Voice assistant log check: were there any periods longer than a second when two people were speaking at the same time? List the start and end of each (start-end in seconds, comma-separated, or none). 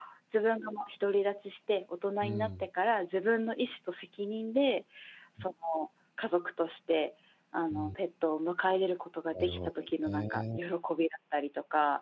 9.3-10.6